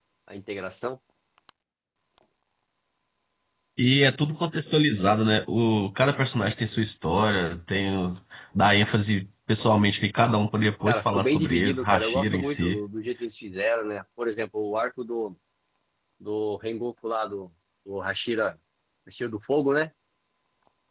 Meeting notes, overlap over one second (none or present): present